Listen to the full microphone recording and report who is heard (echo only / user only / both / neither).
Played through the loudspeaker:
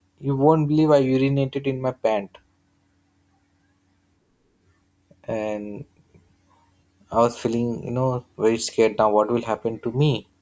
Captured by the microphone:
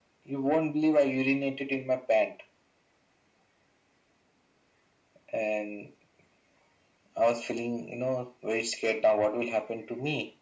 echo only